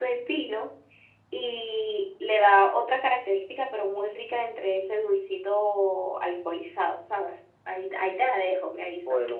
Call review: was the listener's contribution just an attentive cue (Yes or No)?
No